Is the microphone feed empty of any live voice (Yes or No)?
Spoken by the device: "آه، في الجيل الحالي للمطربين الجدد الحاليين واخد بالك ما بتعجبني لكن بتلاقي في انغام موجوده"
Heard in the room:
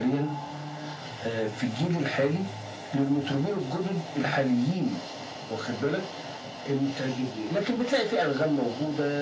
Yes